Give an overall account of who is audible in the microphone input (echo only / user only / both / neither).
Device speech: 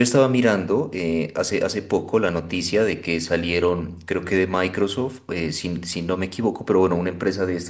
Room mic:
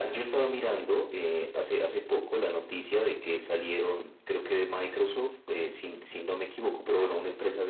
echo only